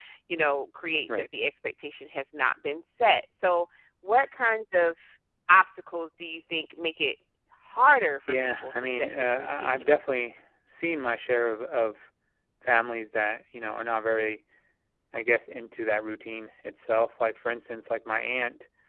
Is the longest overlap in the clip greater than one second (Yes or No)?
Yes